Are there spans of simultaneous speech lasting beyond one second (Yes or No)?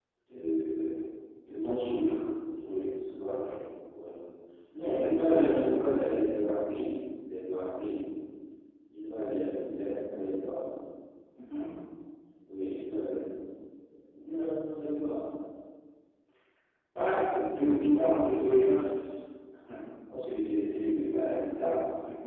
Yes